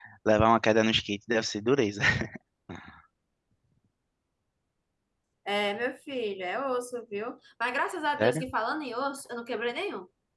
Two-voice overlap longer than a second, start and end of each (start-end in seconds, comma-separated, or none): none